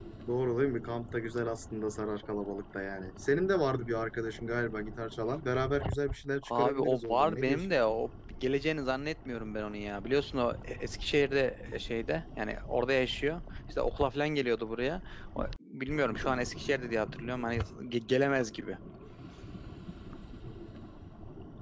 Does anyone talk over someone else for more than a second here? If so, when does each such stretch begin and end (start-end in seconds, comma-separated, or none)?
6.4-7.7